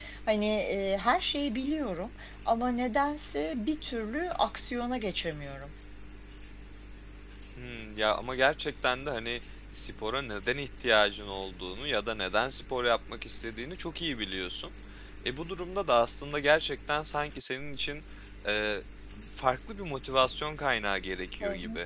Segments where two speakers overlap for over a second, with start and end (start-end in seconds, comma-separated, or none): none